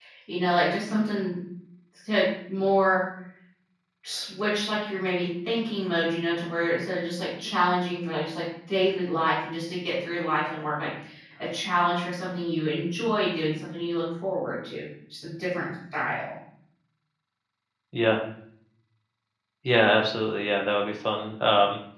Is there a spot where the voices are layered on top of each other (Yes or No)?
No